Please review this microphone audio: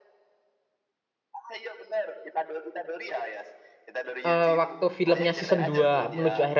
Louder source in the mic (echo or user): user